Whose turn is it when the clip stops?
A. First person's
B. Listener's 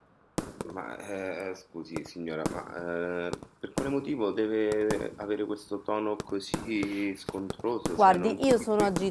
B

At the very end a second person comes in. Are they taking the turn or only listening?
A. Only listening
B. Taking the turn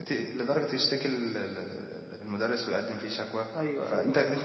A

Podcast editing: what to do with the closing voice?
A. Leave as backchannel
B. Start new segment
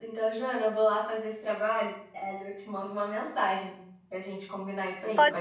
B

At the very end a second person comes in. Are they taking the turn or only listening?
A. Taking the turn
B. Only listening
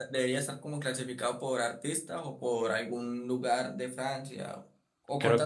A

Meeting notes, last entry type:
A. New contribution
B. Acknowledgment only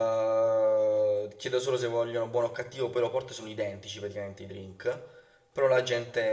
B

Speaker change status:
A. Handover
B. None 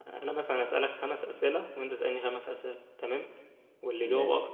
B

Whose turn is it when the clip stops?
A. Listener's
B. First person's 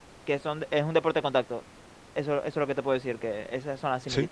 B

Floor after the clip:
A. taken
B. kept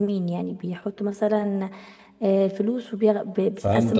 A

